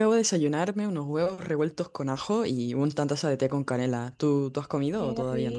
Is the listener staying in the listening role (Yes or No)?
No